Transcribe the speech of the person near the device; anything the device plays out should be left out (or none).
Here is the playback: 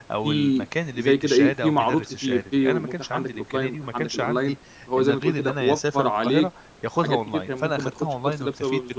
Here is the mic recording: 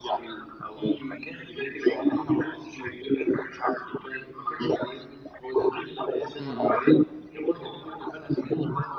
إمم، إمم.